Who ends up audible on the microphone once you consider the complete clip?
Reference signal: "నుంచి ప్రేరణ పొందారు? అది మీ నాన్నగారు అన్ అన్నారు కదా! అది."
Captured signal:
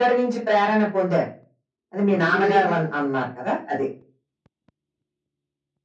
both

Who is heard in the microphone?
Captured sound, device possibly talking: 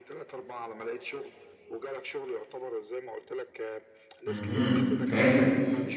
both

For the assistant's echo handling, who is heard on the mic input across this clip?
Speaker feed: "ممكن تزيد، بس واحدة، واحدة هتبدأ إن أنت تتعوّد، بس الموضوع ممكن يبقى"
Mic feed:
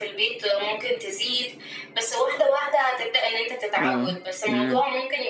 both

